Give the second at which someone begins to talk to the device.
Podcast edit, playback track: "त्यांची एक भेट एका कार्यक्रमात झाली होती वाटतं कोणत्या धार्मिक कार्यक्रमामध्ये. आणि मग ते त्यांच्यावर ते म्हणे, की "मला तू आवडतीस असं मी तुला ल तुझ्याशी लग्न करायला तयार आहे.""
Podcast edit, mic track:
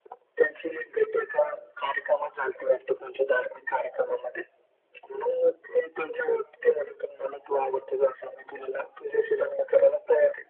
none

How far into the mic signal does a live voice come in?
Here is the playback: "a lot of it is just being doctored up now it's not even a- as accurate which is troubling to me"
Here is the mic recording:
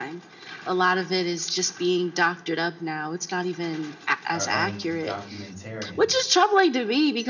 4.3 s

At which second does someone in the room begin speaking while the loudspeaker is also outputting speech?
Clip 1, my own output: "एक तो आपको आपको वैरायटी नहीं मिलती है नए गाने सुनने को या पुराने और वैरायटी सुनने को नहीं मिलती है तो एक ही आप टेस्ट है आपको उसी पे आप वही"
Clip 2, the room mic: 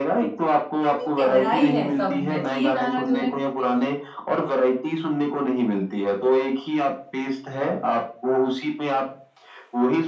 0.8 s

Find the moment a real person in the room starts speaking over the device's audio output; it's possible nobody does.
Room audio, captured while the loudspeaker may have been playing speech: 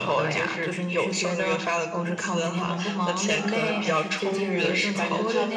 2.0 s

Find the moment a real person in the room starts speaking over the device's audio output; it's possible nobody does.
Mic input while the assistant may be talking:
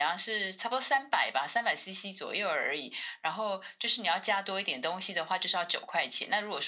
none

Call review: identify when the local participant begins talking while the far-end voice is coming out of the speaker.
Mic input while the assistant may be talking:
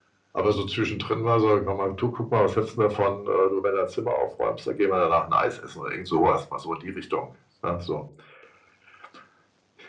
none

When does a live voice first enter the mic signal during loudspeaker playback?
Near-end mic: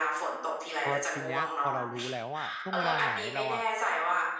0.8 s

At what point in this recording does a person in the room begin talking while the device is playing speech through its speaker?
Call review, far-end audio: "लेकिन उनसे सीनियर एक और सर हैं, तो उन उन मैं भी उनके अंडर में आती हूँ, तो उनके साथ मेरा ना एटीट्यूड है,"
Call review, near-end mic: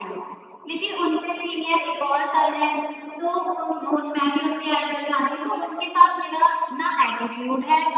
none

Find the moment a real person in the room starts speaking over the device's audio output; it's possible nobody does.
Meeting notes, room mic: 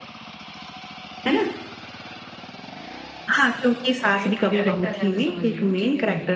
4.0 s

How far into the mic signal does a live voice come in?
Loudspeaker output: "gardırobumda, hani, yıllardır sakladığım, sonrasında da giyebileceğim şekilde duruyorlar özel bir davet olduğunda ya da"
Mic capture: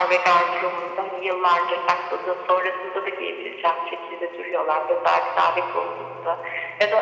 none

